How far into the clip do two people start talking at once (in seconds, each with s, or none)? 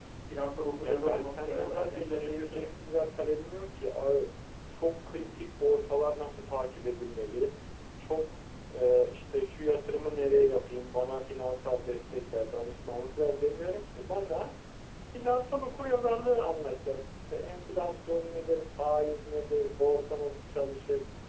0.8 s